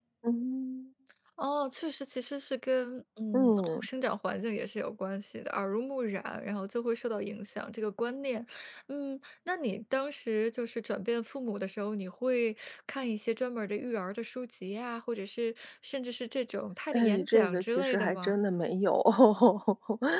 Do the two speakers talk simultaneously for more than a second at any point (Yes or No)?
Yes